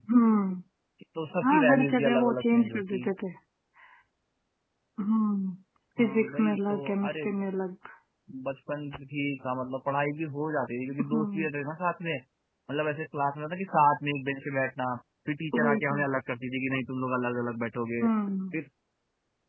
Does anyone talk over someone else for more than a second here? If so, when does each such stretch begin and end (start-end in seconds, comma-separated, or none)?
1.4-3.1, 6.0-7.2